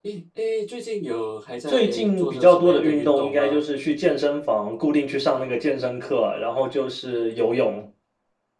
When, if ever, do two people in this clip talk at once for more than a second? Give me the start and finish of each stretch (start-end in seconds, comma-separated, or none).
1.7-3.6